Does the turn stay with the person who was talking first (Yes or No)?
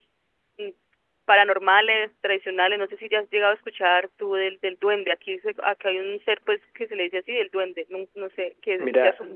No